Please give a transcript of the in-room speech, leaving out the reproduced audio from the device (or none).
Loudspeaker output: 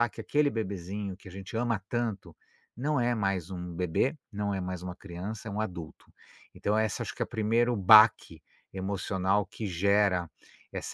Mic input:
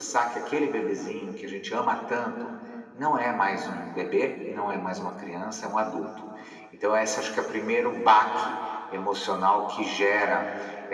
none